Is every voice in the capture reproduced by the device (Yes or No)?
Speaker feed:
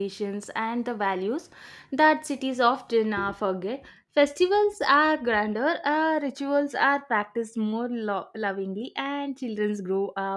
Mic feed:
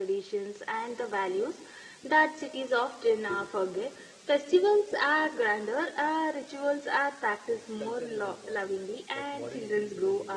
No